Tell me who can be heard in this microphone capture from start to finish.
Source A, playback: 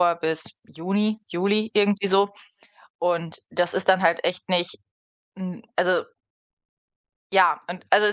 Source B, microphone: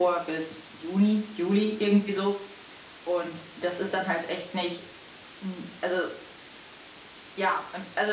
echo only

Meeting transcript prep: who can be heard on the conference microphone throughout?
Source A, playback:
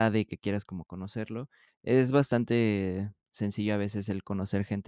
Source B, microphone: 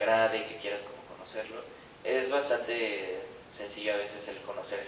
echo only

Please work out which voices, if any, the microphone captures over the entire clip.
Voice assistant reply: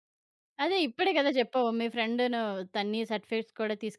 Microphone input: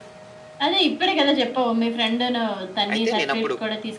both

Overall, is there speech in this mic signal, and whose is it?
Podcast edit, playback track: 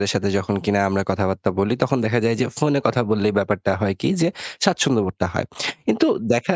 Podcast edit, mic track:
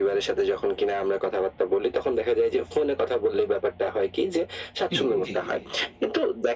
both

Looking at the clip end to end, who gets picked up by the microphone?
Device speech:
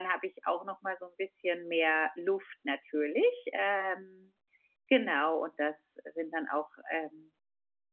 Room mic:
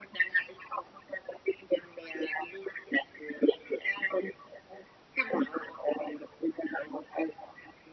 echo only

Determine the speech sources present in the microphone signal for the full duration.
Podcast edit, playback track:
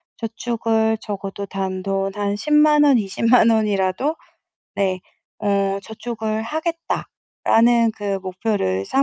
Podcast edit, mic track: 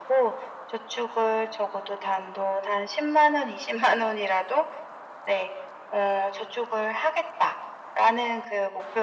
echo only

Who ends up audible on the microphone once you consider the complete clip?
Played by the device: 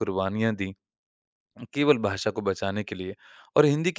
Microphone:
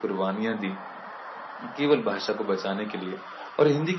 echo only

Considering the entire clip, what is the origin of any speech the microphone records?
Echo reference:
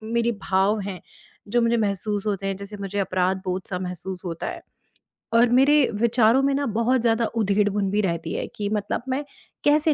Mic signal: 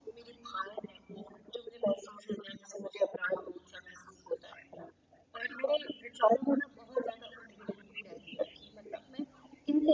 echo only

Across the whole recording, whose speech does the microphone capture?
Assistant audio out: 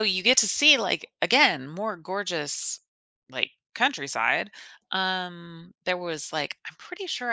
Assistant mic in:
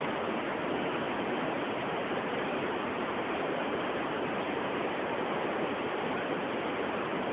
neither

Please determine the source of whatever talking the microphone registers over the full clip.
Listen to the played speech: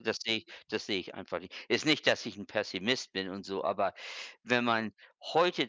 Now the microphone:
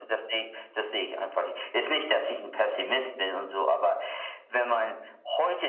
echo only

